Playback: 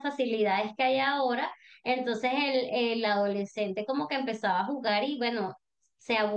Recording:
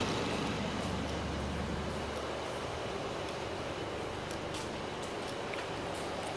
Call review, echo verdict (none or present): none